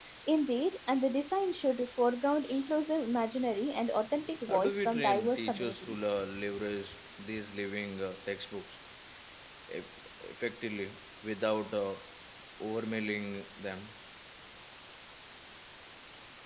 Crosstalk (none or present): present